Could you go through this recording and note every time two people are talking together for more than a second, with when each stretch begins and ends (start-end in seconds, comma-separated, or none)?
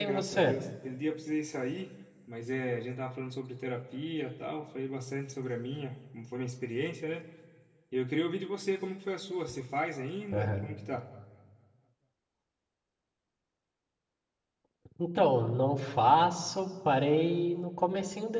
none